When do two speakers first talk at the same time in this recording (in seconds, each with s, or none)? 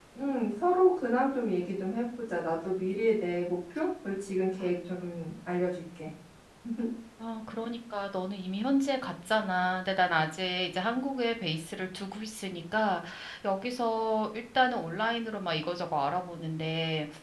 none